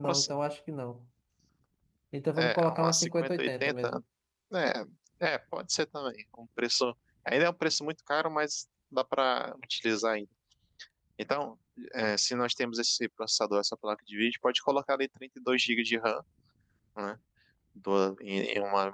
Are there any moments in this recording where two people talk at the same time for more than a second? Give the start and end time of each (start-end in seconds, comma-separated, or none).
2.4-3.9